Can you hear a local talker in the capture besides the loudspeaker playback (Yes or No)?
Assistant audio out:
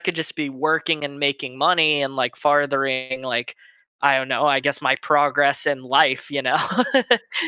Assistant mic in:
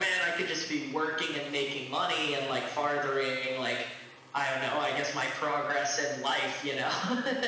No